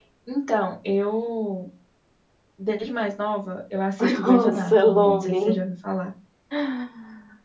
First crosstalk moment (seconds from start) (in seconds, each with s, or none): 4.0 s